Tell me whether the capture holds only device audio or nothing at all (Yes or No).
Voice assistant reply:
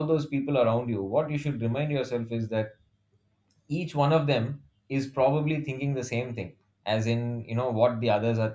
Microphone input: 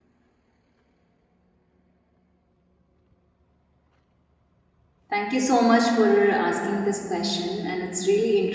No